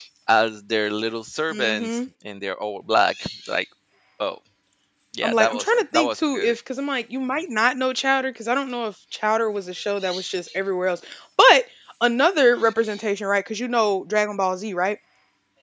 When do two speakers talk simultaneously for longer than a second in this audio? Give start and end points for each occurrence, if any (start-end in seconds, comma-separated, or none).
5.2-6.5